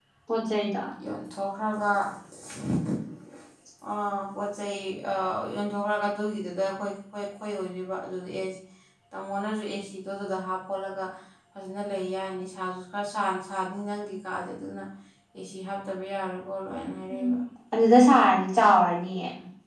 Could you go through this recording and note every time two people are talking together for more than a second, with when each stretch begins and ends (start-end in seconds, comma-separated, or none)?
none